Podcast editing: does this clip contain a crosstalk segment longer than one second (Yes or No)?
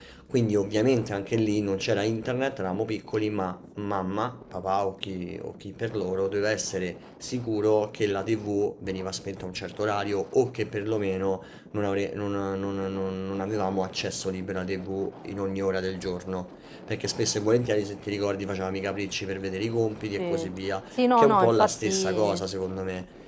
Yes